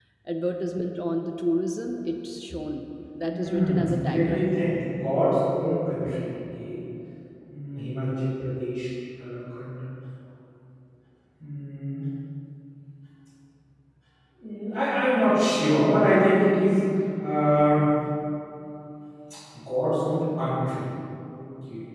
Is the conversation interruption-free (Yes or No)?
No